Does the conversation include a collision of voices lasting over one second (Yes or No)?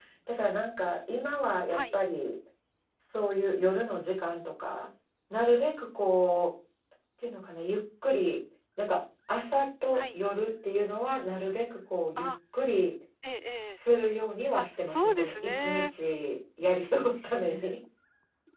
Yes